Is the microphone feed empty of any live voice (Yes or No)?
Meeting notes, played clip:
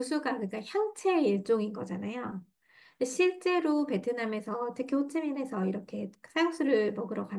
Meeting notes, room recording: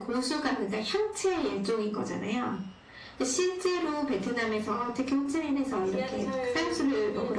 No